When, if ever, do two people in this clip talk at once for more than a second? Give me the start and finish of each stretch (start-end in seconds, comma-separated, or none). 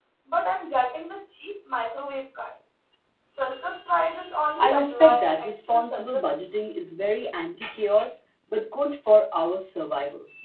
4.6-6.3